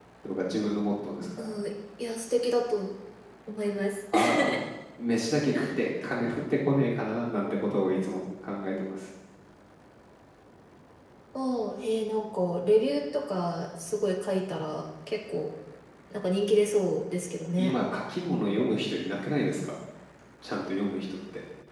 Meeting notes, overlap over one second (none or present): none